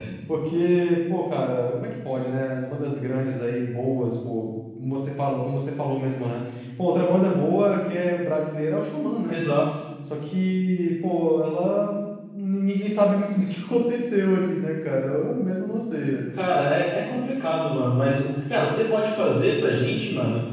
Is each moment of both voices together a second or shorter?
Yes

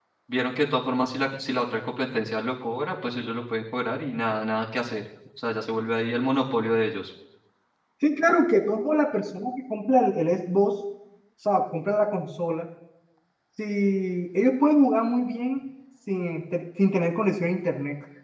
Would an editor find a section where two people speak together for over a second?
No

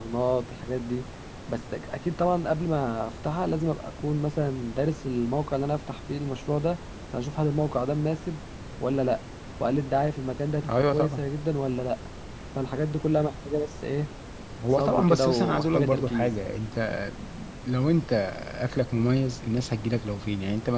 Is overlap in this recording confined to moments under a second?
No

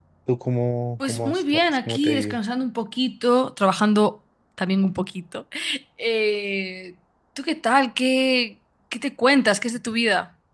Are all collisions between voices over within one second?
No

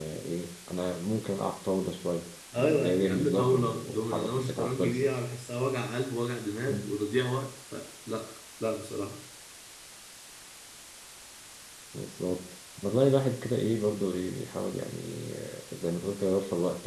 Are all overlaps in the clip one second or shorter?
No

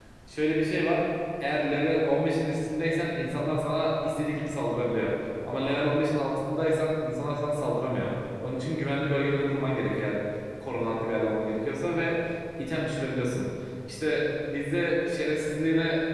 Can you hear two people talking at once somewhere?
No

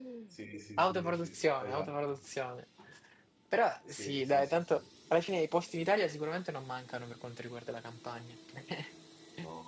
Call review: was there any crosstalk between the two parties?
Yes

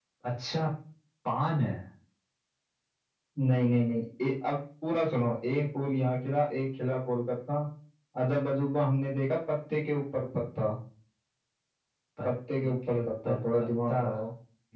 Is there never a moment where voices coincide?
No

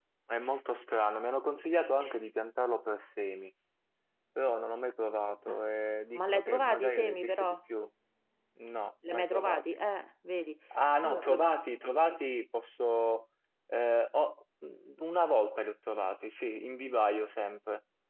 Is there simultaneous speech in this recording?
Yes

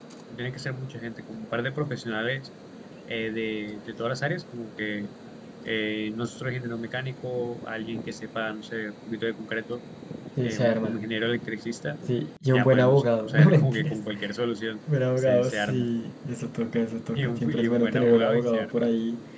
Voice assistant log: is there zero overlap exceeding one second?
No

